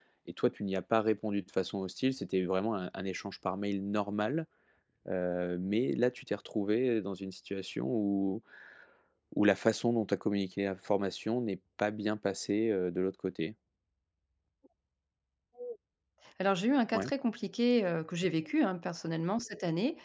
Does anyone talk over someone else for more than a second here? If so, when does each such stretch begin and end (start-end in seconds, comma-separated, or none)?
none